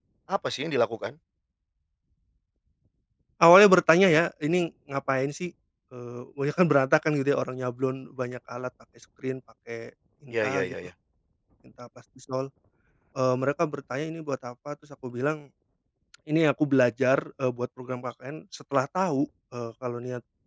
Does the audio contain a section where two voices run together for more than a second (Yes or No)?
No